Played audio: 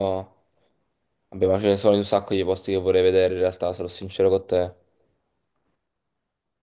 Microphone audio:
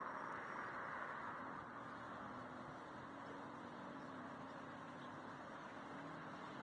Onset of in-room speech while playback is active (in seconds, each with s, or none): none